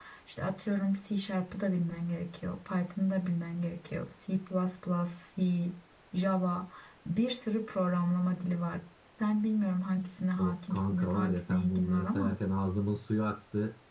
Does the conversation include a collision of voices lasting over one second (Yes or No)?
Yes